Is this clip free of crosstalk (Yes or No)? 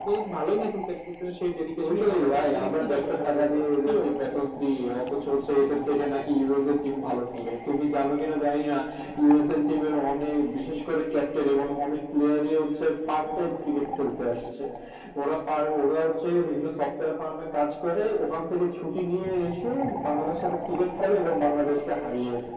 No